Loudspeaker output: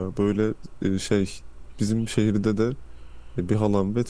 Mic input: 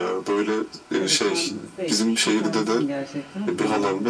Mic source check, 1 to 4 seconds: both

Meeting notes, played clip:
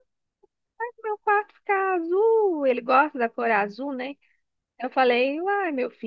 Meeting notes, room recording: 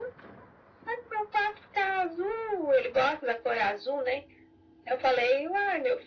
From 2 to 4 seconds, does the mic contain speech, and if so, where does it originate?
echo only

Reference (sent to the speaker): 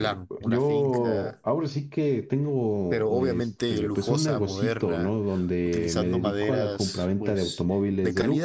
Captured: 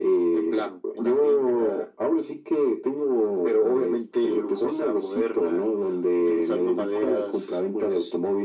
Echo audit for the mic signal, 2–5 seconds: echo only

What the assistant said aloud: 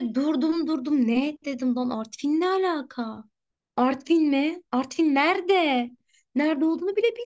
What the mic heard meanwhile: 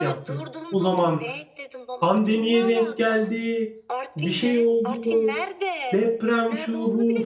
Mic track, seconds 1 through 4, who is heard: both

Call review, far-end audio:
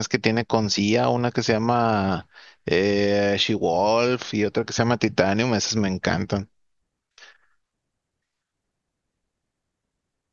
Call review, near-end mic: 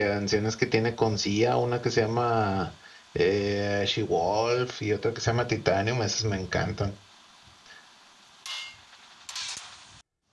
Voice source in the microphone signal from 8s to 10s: neither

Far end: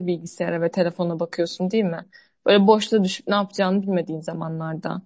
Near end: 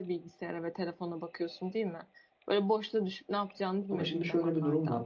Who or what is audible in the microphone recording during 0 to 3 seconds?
echo only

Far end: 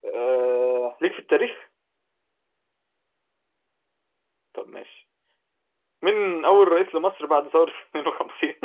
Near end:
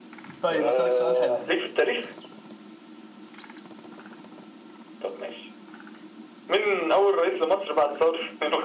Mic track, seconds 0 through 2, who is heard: both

